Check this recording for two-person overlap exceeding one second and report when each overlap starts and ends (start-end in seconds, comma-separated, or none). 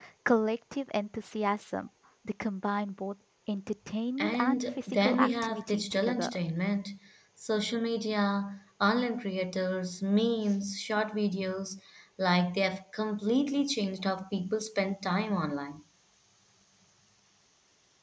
4.2-6.4